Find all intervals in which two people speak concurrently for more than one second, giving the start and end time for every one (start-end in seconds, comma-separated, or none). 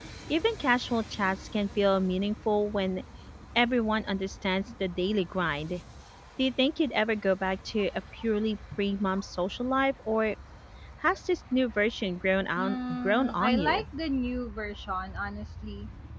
12.6-13.8